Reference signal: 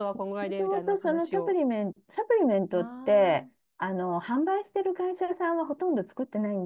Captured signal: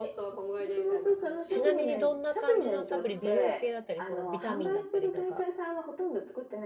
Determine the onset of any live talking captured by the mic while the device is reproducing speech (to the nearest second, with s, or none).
1 s